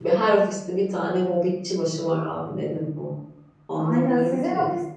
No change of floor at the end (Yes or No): No